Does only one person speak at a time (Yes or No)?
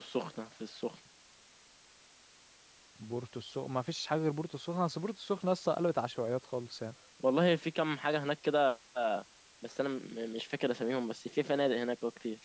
Yes